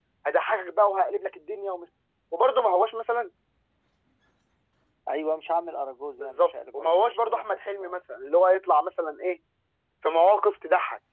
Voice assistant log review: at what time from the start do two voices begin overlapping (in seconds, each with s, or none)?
6.2 s